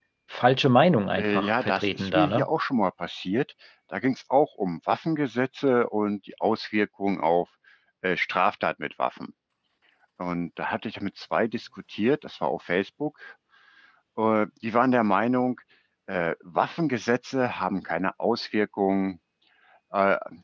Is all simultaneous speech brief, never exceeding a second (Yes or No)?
No